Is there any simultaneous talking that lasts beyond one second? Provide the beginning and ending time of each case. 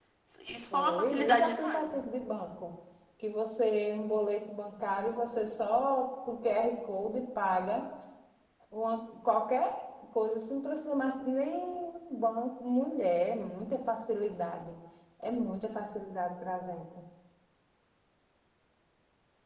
0.7-1.9

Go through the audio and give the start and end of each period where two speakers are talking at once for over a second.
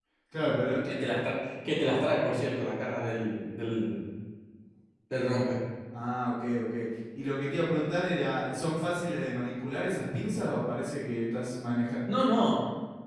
none

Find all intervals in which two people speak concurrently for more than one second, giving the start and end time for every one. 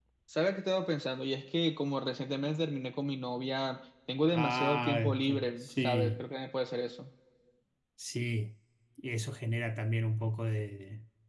4.3-6.2

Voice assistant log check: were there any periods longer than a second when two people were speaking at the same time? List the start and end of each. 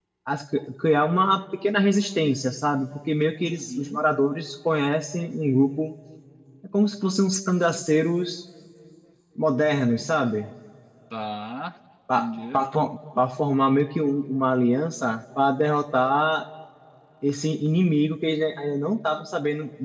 none

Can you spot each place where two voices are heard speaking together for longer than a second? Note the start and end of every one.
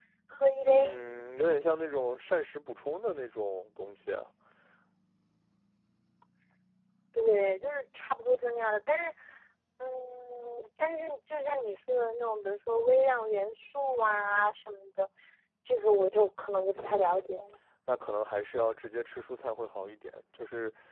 none

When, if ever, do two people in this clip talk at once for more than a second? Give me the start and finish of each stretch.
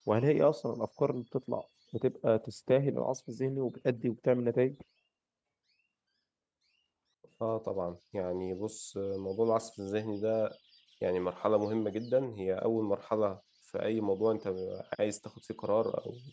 none

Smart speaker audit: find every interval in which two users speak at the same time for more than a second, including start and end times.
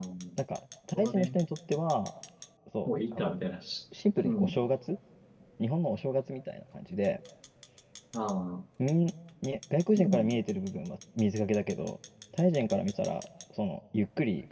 none

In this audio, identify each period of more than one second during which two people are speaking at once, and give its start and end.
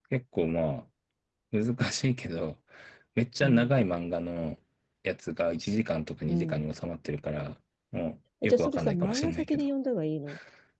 8.4-9.6

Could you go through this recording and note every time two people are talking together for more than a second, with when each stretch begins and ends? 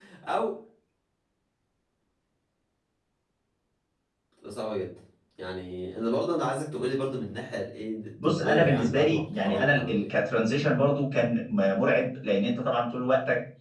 8.2-10.1

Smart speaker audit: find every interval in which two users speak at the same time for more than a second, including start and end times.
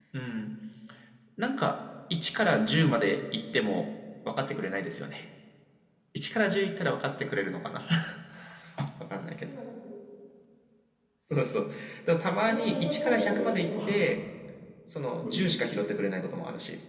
12.5-13.7

